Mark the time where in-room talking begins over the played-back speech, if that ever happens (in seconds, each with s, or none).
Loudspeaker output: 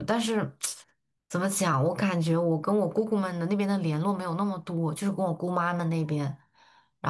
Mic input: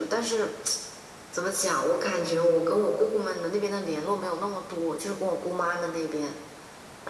none